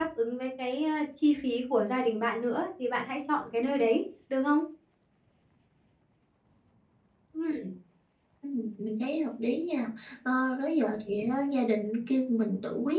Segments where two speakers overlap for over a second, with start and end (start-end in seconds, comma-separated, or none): none